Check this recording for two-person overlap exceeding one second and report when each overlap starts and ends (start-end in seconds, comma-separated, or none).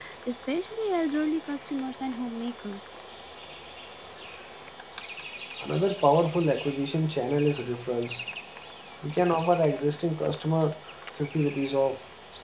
none